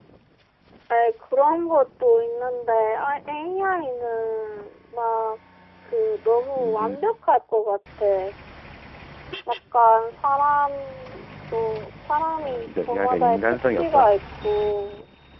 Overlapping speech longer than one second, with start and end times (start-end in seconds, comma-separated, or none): 12.4-14.1